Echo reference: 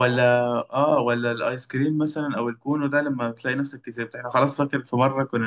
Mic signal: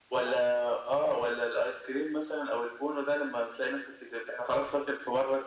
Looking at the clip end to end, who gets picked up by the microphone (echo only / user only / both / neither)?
echo only